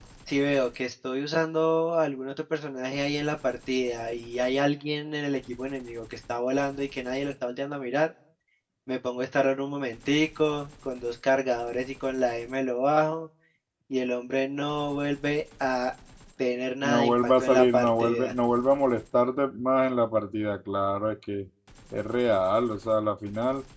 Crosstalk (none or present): present